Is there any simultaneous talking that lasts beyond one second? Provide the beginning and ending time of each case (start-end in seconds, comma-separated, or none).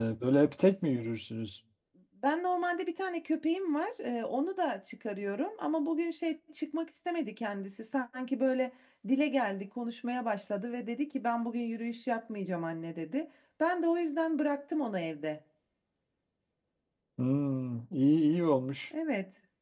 none